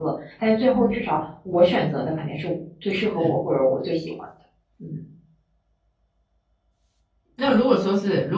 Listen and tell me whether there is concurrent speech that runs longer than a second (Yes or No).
No